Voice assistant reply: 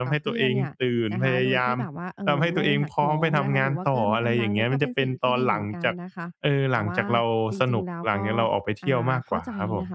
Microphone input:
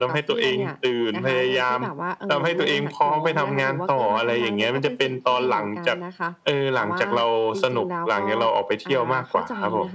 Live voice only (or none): none